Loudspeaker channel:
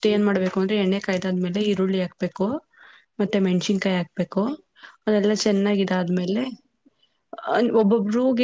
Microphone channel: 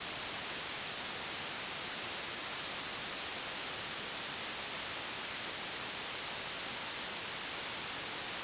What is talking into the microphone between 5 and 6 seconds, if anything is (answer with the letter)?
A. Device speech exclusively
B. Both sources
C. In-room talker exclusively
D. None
D